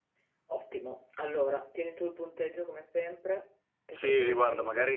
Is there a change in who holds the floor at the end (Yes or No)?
Yes